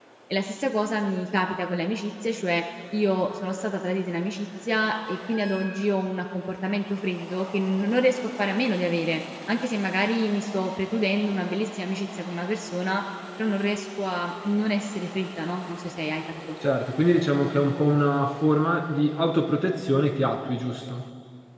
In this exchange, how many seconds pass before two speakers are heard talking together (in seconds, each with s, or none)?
none